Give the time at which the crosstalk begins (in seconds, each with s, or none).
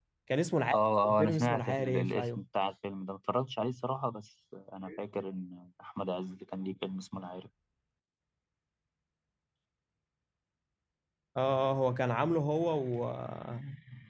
0.7 s